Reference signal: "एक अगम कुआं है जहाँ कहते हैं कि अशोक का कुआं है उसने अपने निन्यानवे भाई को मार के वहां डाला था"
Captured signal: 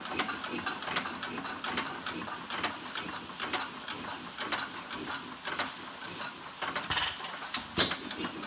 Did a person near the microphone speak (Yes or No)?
No